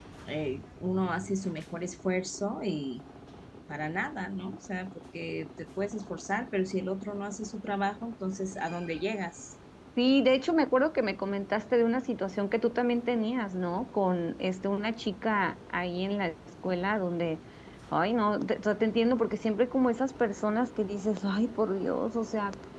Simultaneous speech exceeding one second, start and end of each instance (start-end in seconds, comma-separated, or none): none